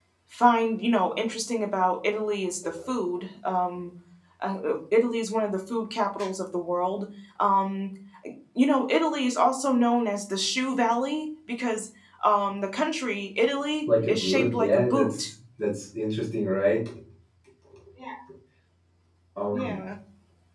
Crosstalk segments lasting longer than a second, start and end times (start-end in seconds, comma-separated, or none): 14.1-15.3